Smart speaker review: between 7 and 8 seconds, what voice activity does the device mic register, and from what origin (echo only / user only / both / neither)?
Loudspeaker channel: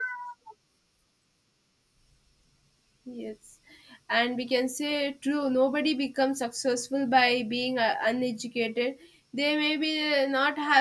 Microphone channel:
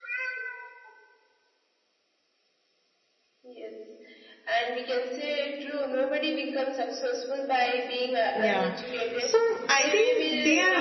echo only